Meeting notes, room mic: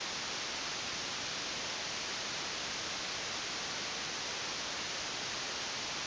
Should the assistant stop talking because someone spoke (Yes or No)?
No